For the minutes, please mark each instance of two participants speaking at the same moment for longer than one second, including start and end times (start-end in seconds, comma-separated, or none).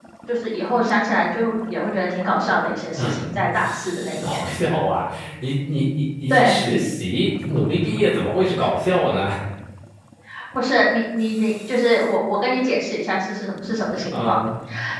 none